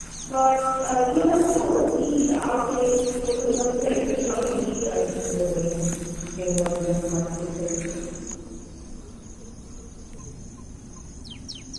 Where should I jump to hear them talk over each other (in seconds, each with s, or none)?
3.3 s